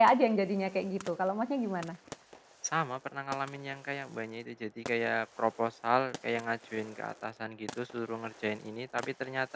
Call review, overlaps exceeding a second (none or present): none